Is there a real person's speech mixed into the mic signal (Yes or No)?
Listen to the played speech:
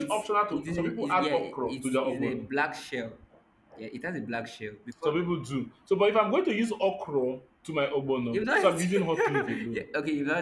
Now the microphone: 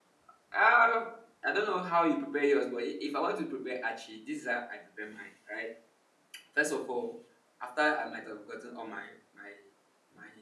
Yes